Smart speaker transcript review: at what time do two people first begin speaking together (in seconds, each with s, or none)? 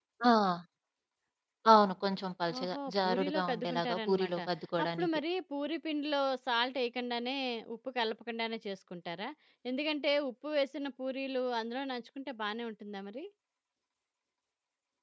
2.6 s